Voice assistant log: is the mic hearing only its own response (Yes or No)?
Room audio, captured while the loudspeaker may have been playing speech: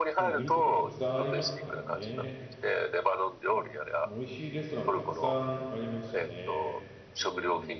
No